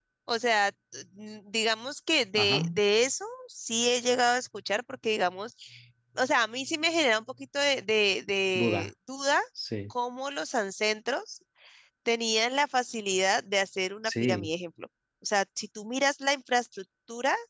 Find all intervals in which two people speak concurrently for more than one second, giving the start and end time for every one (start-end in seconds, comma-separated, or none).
none